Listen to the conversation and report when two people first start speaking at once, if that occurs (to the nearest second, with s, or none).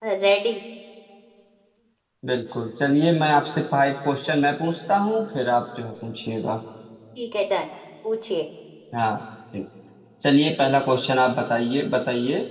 none